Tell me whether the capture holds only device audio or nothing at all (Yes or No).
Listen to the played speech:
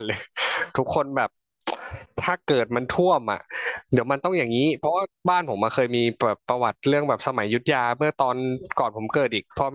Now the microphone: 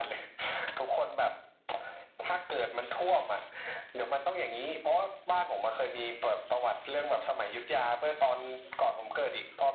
Yes